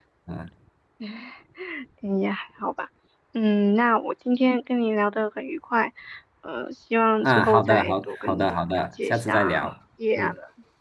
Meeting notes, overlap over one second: present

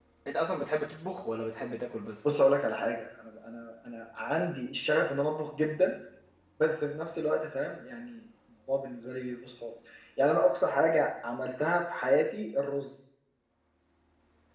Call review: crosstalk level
none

